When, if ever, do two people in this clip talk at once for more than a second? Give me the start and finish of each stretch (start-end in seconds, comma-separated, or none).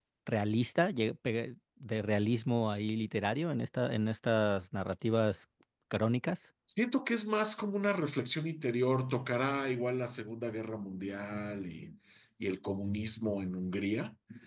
none